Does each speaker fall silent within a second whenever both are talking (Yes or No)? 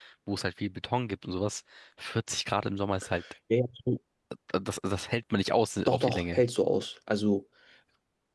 Yes